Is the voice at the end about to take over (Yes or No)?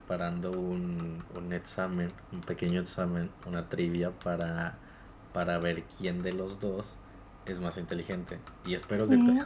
No